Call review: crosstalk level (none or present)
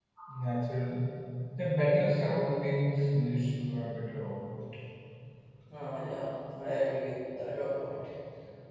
none